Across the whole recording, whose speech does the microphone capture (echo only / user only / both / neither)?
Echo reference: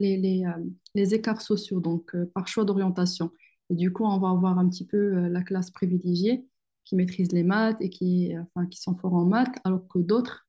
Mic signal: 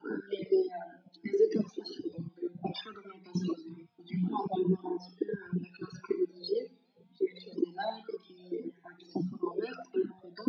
echo only